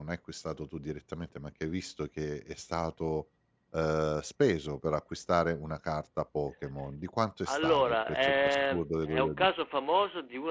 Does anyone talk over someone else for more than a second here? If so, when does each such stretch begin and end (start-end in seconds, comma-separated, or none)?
7.5-9.5